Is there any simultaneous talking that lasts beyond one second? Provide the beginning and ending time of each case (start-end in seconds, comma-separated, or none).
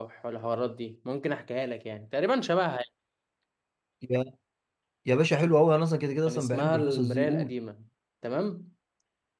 6.3-7.5